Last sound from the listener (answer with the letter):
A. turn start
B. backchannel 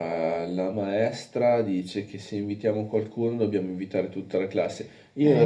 B